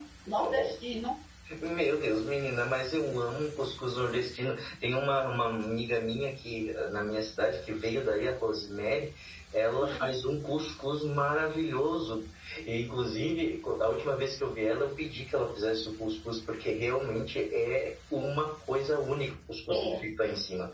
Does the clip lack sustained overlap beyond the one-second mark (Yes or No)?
Yes